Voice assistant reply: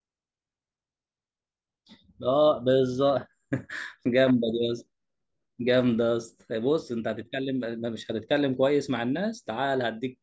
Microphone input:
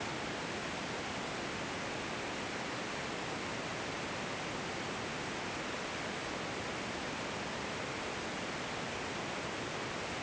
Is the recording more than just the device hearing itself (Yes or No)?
No